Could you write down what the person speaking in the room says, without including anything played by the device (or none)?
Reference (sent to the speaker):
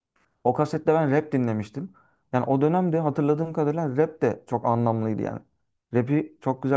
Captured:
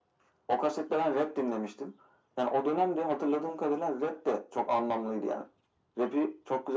none